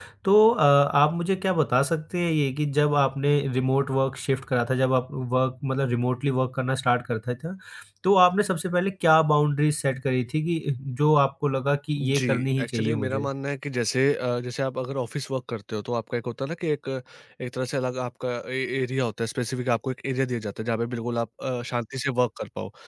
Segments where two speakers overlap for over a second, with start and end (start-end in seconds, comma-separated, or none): 12.0-13.3